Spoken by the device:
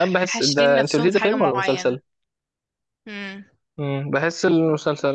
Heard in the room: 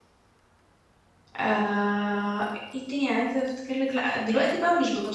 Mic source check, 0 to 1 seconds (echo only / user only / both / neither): neither